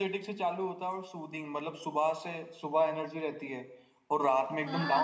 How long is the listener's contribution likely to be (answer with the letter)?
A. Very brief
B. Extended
B